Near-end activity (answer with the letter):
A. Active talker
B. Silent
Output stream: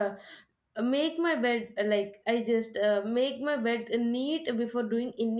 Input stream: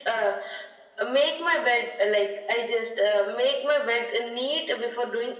B